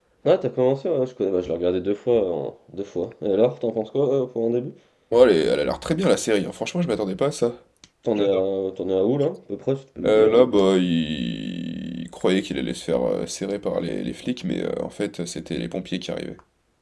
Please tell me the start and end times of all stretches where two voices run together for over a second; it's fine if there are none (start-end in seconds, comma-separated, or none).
none